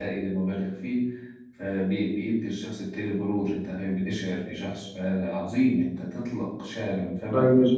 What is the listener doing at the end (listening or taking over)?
taking over